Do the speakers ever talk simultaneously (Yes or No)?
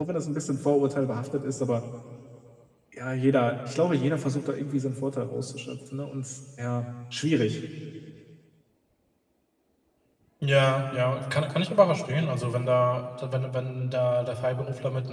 No